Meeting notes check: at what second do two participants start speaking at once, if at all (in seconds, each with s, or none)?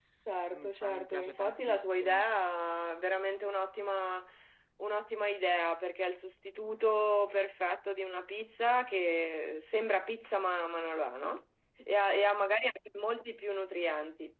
0.5 s